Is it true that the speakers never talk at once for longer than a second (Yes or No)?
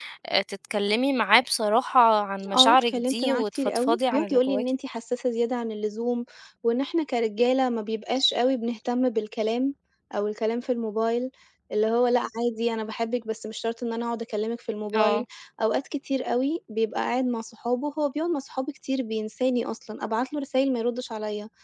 No